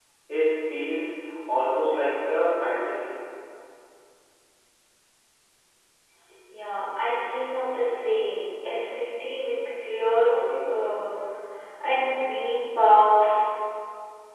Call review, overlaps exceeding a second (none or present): none